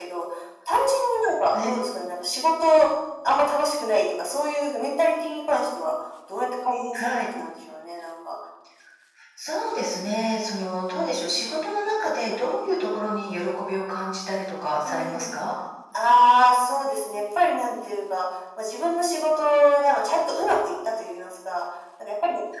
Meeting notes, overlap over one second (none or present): none